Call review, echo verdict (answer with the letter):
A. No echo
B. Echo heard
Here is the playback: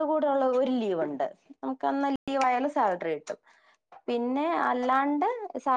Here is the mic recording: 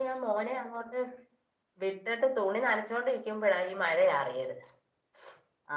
A